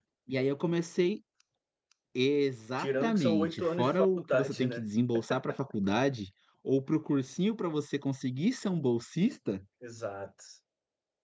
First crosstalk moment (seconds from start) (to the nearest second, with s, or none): 3 s